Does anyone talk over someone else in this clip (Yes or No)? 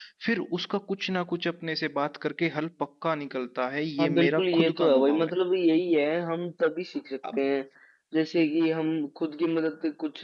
Yes